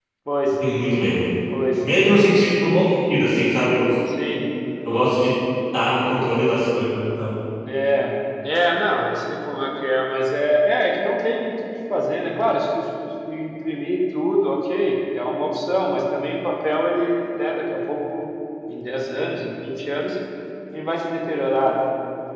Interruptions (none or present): none